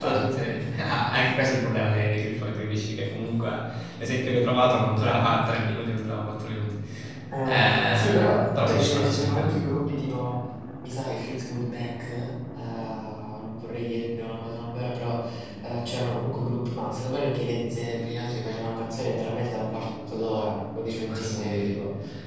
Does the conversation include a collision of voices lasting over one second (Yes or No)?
Yes